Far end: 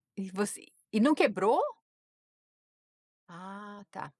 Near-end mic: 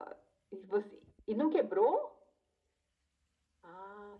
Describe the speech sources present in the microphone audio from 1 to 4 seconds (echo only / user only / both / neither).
echo only